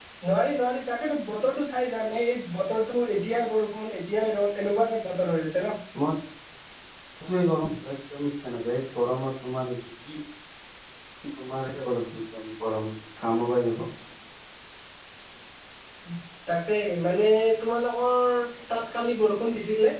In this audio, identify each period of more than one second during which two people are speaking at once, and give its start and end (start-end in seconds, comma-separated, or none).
none